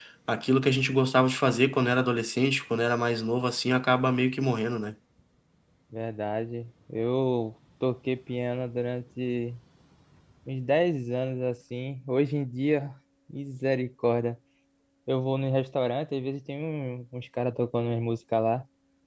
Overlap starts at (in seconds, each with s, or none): none